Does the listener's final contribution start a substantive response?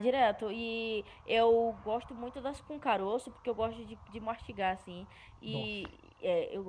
No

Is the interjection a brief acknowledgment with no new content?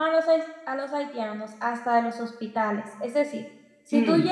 Yes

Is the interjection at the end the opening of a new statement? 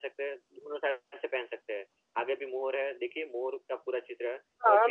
Yes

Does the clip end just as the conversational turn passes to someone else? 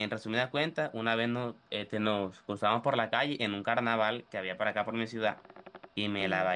No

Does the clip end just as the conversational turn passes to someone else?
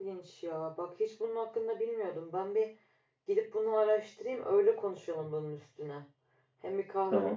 No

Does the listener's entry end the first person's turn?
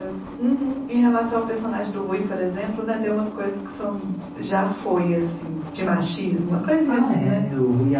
Yes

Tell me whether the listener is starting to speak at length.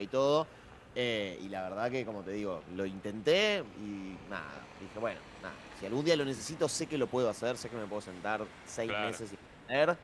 No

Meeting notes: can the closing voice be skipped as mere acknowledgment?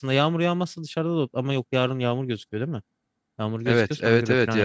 No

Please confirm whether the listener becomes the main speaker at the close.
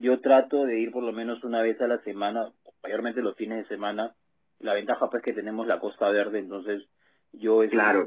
No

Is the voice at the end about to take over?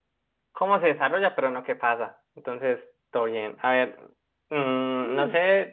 No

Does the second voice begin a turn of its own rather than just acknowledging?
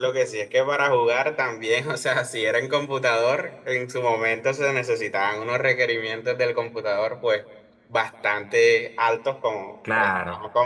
No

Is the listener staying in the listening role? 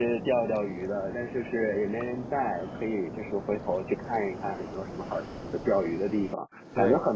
Yes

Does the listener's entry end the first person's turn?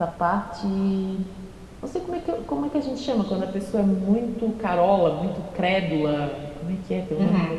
Yes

